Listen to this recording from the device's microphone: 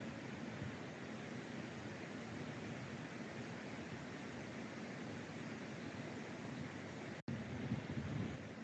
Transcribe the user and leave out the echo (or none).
none